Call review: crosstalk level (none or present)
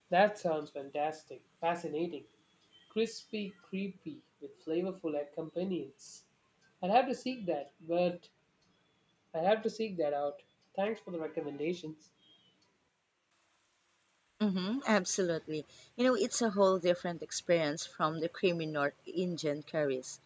none